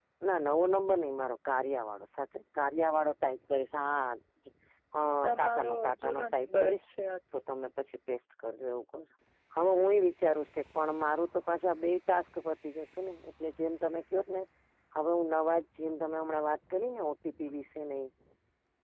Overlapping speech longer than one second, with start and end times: 5.2-6.8

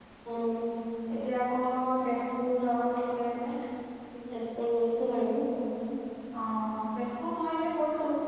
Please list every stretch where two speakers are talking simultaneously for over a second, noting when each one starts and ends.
none

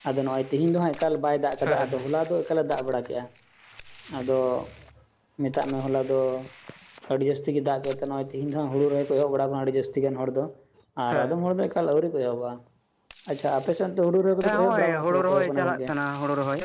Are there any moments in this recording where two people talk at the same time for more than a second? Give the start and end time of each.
14.4-15.8

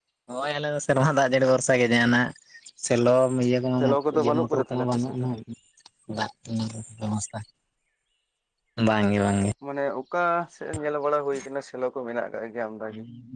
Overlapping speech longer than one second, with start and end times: 3.8-5.1

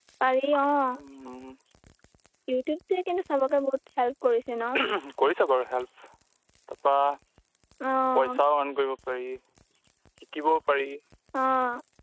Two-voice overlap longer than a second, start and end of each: none

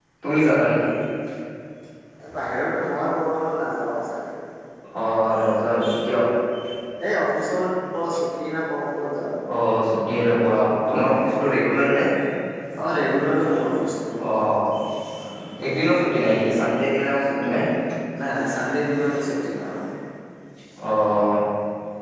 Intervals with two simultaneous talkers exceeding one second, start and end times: none

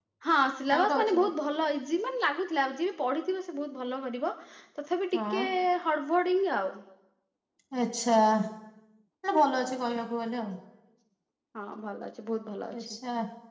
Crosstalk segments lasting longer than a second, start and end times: none

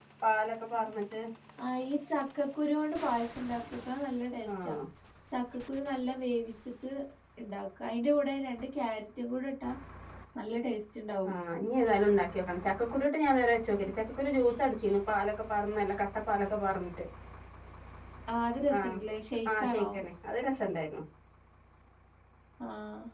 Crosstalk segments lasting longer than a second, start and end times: none

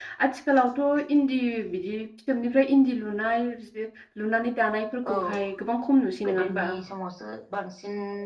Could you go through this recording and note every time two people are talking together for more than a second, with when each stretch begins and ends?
none

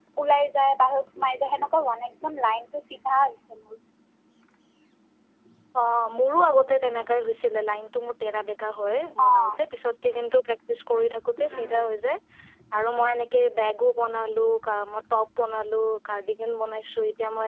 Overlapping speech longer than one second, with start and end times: none

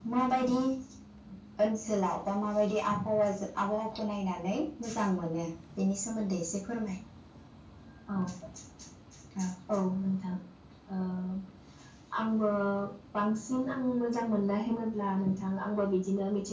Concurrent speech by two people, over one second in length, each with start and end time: none

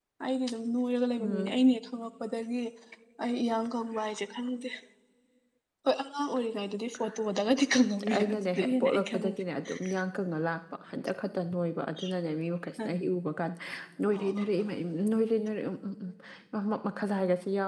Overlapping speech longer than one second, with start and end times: 8.2-9.4

